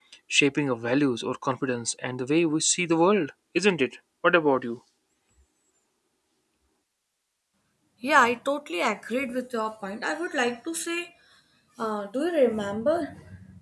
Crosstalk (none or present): none